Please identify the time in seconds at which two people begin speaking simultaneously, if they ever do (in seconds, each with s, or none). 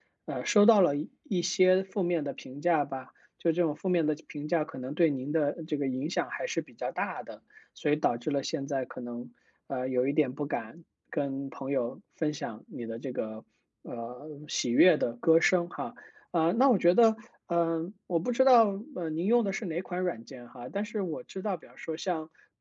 none